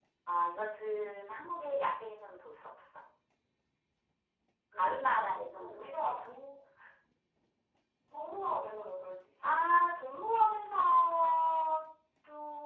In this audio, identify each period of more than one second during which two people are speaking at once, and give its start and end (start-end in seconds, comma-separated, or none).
4.8-6.0